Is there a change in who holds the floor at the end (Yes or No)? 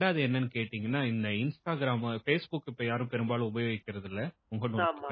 No